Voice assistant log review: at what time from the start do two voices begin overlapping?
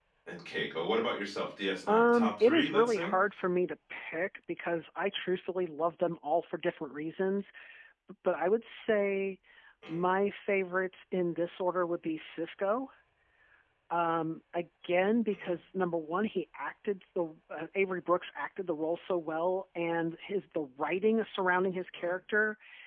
1.9 s

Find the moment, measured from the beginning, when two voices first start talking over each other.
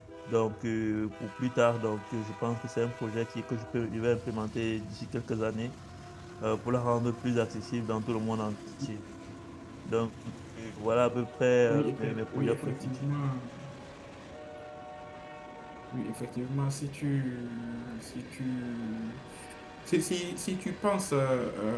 11.7 s

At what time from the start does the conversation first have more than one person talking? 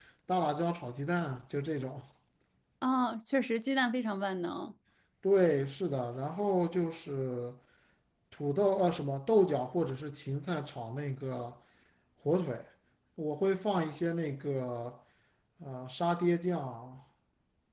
none

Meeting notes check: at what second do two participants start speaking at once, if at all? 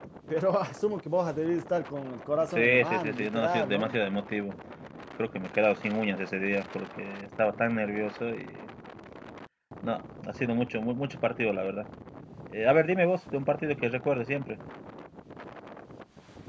2.4 s

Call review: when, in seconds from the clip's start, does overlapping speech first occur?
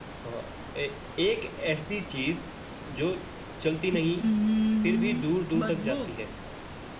4.8 s

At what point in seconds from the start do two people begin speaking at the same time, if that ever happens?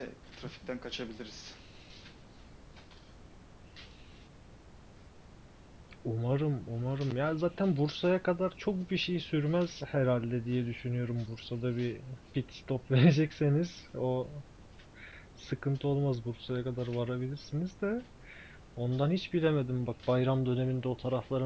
none

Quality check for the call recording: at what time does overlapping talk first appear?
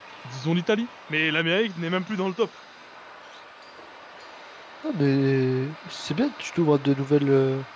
none

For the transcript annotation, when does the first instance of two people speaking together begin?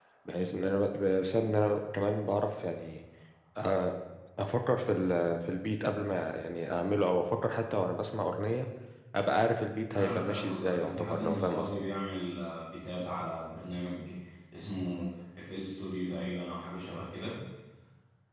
9.9 s

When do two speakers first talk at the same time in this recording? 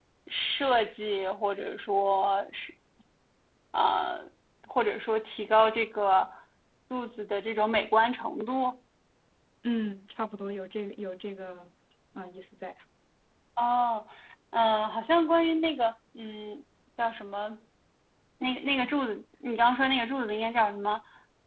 none

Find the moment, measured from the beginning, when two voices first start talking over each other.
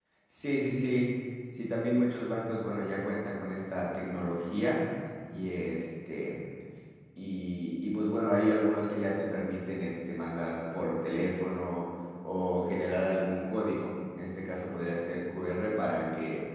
none

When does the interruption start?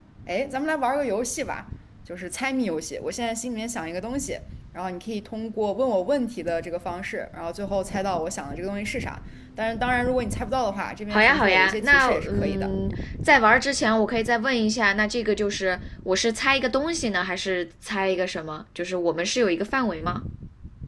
11.1 s

